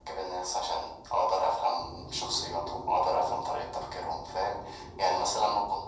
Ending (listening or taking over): listening